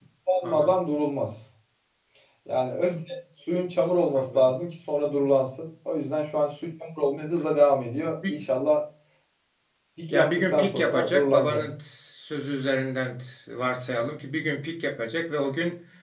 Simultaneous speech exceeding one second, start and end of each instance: 10.1-11.6

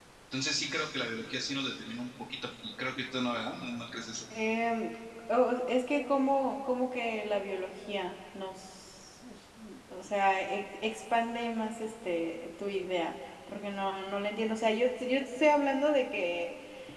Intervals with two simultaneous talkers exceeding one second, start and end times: none

